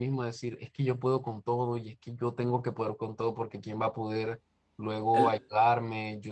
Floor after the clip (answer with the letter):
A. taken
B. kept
B